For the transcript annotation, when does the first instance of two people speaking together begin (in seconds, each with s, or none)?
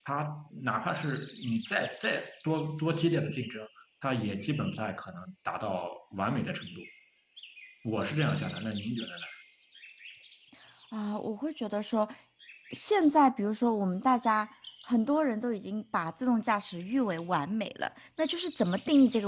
none